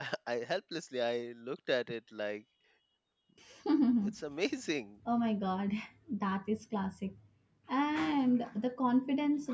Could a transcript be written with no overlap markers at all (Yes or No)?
Yes